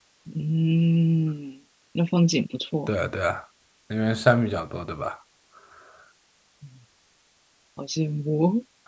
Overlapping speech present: No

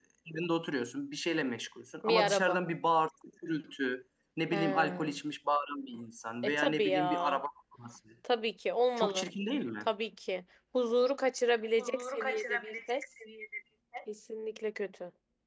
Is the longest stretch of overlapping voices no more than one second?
No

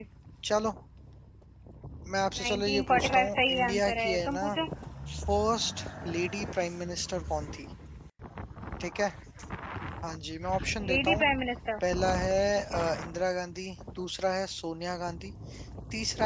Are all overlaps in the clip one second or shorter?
No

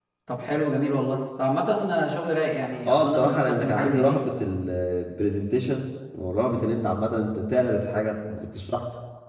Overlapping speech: Yes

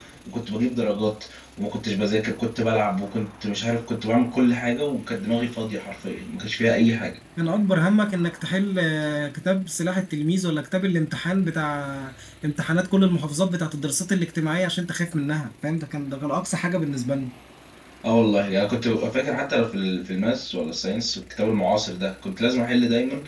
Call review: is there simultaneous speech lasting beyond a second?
No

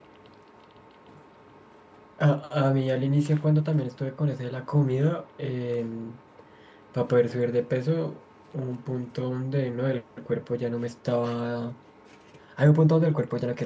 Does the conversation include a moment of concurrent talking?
No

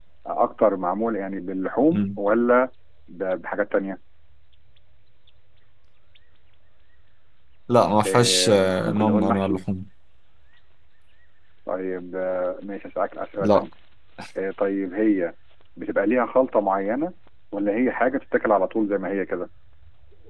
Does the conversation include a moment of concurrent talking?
Yes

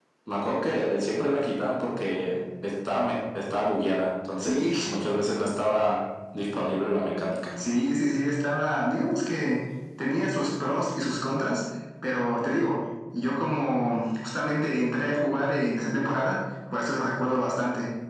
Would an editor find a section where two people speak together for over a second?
No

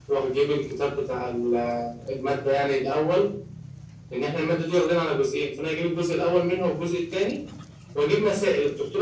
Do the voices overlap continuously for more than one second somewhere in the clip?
No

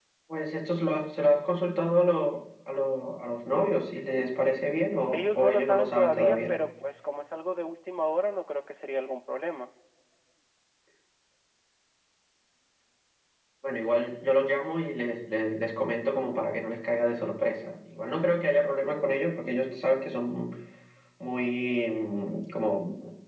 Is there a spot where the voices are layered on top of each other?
Yes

